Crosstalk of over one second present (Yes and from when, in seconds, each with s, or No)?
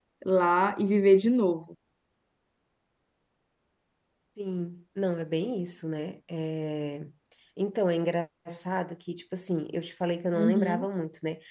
No